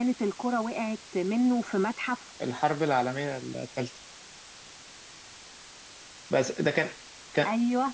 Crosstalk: none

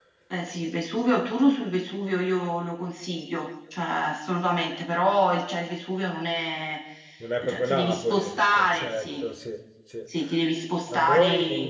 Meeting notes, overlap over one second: present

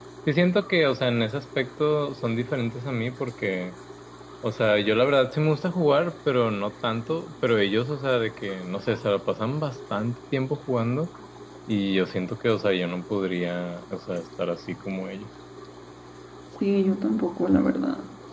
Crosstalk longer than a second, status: none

